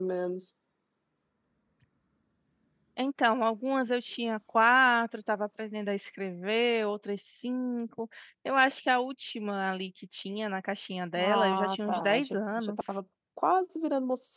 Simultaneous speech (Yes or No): Yes